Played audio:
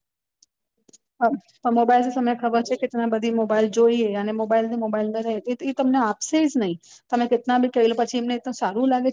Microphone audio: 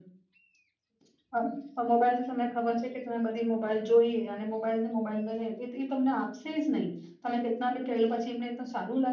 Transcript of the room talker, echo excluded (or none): none